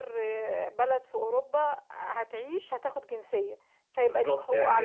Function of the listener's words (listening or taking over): taking over